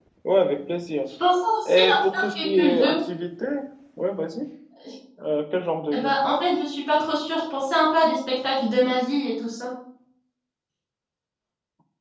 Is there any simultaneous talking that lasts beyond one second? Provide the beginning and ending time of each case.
1.7-3.0

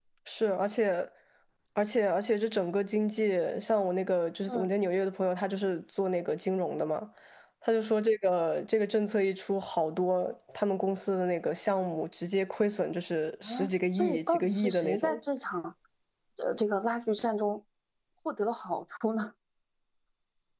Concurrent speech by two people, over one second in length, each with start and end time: 13.4-15.2

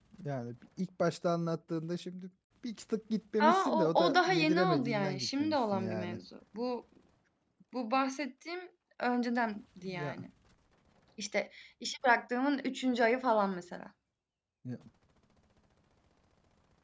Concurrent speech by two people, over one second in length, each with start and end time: 3.4-6.2

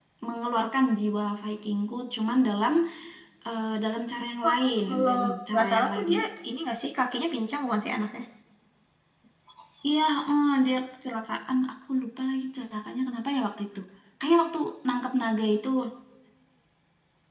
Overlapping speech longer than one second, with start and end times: 4.4-6.2

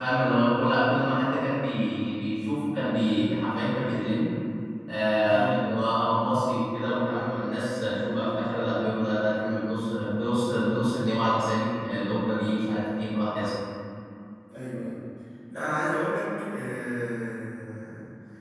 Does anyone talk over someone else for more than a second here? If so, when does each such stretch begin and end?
none

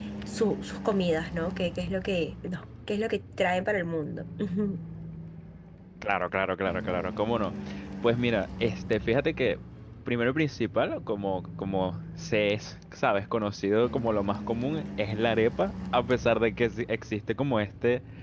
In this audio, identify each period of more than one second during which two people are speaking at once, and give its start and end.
none

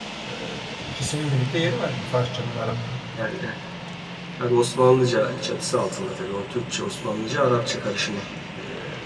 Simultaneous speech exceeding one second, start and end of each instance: none

